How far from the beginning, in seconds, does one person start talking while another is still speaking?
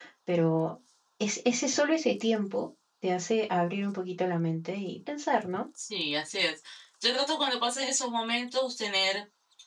none

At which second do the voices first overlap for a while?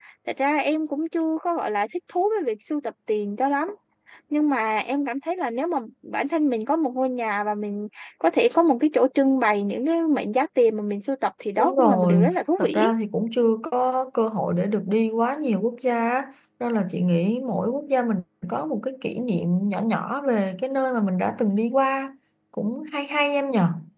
12 s

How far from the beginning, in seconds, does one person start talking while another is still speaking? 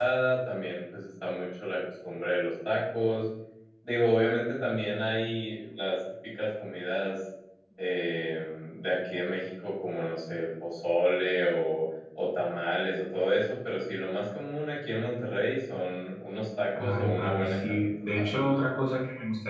17 s

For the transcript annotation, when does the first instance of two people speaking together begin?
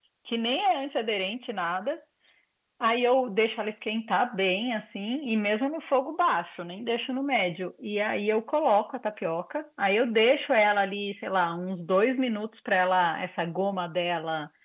none

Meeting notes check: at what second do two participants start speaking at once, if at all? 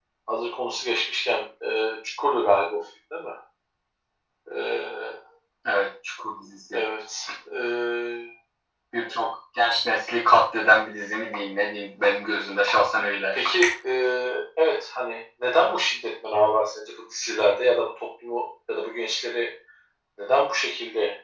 none

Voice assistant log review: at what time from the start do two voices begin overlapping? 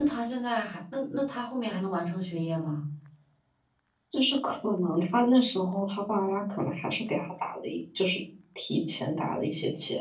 none

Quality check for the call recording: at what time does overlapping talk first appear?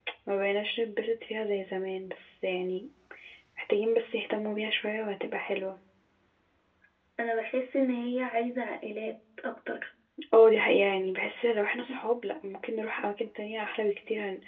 none

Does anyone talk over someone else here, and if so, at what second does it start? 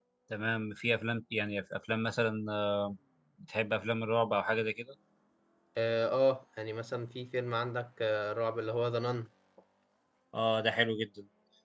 none

